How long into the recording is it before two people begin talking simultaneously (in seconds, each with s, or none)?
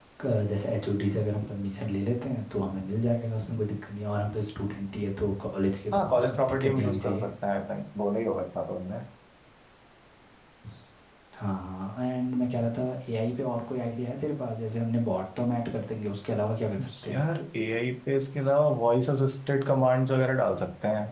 5.9 s